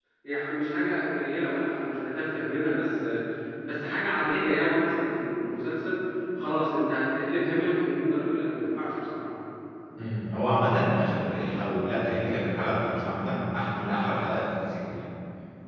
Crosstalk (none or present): none